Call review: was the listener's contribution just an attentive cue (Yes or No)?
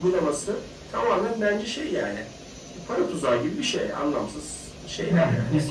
No